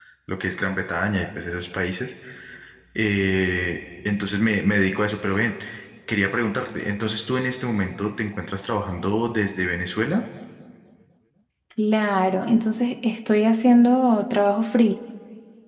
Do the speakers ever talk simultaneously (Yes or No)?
No